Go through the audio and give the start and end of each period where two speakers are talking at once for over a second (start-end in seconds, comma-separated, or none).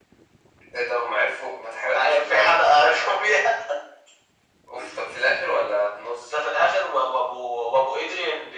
1.9-3.4